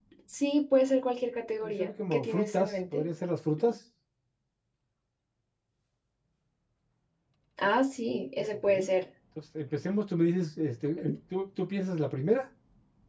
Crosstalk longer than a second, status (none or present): present